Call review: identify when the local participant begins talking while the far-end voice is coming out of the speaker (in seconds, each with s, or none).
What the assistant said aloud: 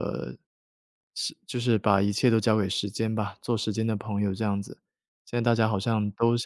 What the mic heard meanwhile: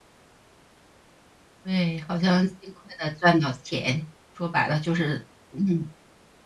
1.6 s